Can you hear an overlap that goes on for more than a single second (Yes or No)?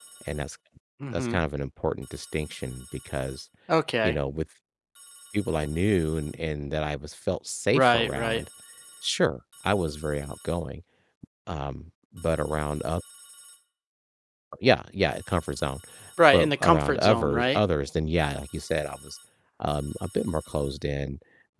Yes